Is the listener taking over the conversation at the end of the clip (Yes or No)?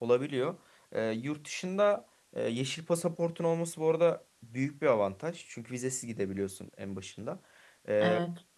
No